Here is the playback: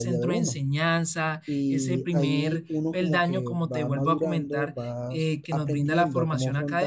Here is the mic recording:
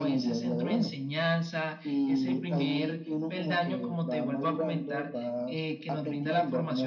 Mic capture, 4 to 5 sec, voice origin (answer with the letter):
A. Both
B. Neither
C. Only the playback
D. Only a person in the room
C